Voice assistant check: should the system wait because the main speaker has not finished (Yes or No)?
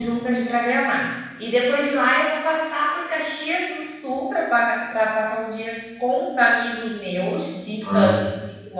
Yes